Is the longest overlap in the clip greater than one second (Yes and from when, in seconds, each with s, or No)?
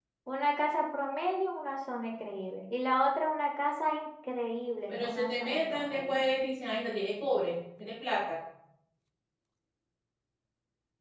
Yes, from 4.9 s